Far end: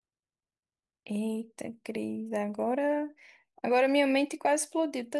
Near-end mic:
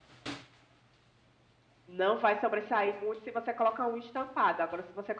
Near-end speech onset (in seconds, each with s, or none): 1.9 s